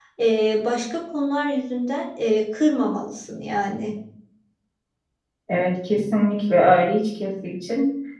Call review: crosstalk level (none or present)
none